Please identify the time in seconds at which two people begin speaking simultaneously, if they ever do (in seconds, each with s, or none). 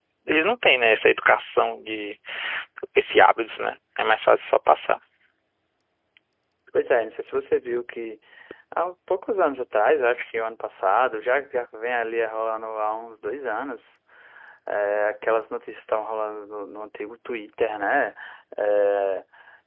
none